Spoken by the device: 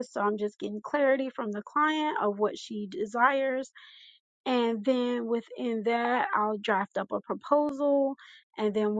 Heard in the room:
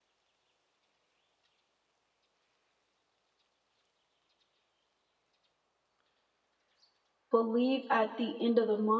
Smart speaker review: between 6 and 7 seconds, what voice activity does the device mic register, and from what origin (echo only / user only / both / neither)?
neither